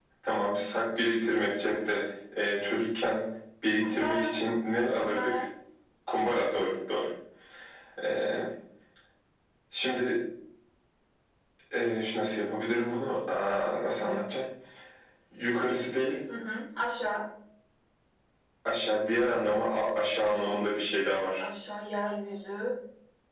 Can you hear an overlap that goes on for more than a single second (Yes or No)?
No